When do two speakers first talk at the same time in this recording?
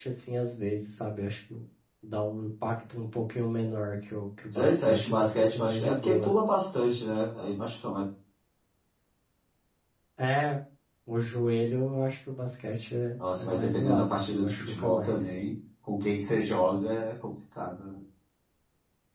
5 s

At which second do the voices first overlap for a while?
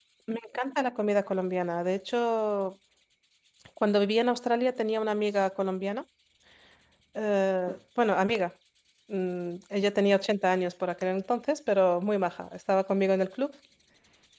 none

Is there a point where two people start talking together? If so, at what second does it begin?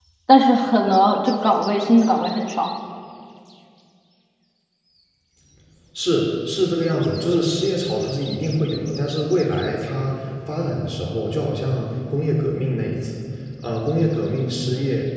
none

